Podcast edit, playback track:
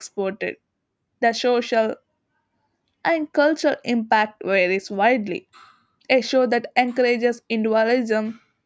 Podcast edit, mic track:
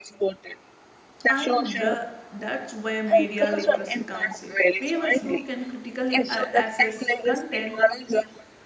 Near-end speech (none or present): present